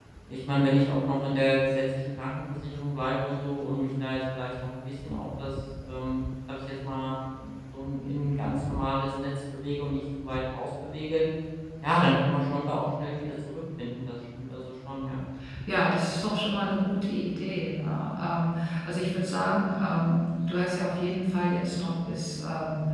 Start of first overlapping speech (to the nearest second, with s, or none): none